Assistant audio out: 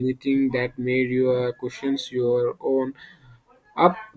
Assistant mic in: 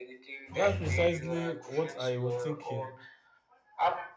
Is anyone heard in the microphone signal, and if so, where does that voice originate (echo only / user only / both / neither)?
both